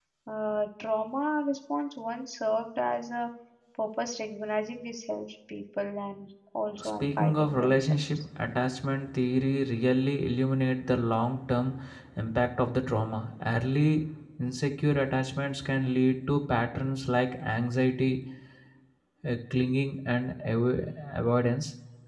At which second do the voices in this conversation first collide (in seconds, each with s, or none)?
6.8 s